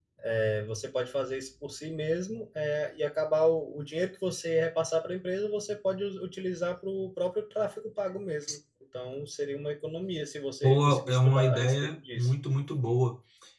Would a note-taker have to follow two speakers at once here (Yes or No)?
Yes